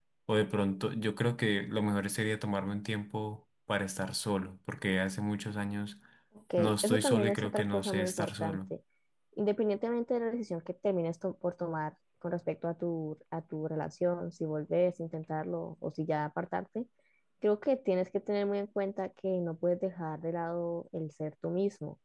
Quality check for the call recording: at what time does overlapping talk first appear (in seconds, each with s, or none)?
6.6 s